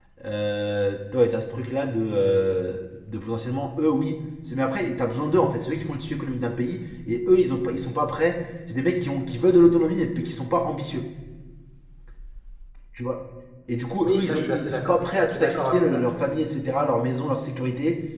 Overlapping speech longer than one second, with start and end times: 14.0-16.0

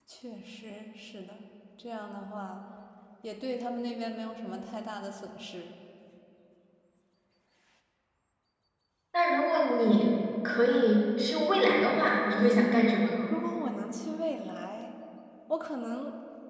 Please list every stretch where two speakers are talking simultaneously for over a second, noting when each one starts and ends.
none

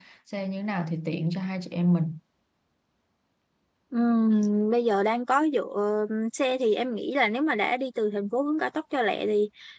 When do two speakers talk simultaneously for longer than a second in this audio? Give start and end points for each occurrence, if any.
none

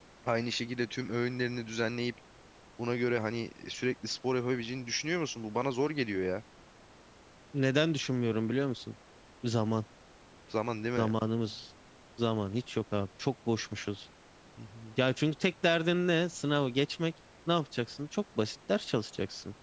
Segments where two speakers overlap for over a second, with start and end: none

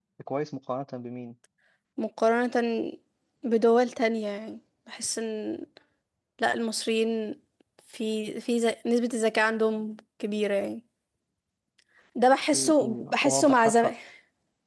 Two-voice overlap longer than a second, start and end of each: 12.5-13.9

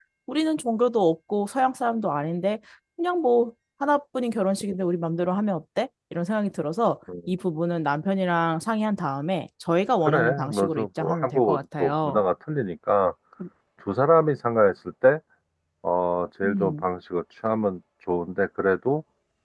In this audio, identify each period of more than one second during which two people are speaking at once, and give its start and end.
10.1-12.2

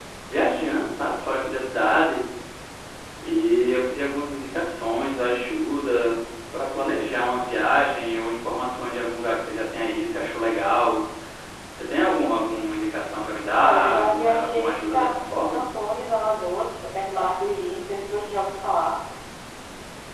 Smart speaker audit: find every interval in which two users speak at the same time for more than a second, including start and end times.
13.5-15.6

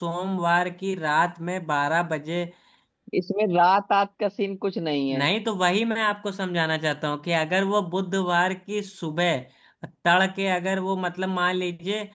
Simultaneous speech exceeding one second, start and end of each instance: none

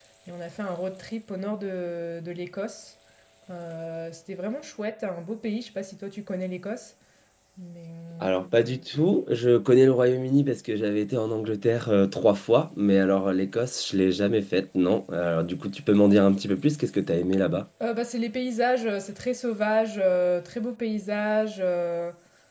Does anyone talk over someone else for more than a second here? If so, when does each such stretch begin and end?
none

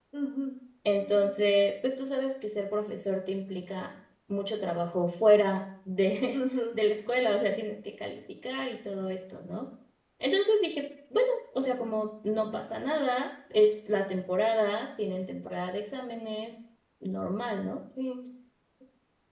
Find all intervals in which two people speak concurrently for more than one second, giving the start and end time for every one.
none

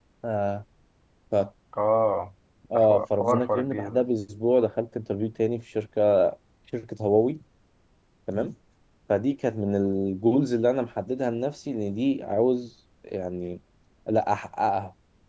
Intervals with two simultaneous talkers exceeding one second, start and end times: 2.7-4.0

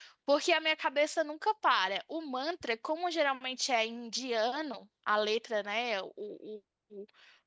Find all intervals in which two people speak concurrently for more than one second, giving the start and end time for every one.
none

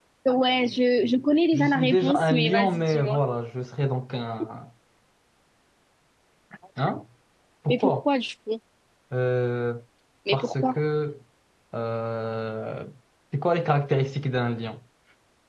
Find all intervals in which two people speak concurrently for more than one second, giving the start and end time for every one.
1.5-3.2

